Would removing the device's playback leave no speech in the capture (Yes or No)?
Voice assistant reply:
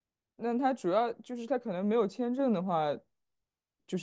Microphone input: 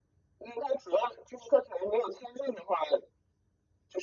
Yes